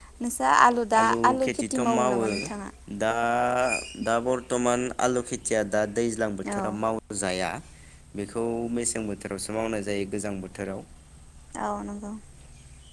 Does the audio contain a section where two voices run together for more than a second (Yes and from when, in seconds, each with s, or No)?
Yes, from 1.0 s